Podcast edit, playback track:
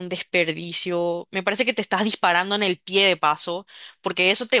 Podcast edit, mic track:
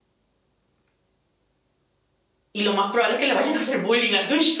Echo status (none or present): none